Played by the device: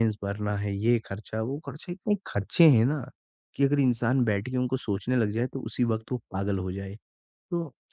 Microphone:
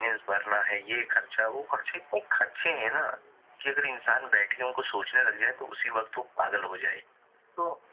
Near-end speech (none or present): none